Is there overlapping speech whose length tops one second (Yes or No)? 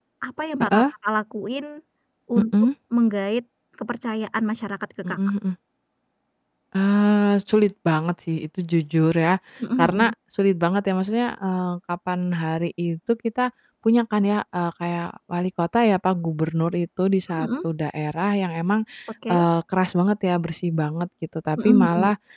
No